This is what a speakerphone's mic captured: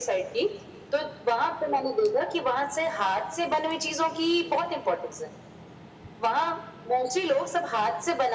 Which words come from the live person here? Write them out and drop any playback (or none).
none